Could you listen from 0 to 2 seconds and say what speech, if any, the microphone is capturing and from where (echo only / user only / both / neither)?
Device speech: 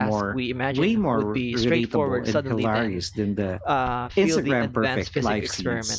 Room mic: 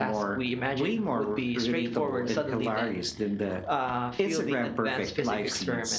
echo only